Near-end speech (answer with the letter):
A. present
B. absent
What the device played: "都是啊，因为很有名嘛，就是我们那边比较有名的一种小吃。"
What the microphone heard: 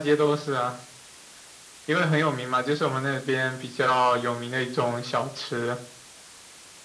B